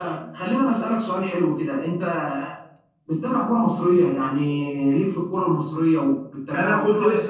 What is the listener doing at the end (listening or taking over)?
taking over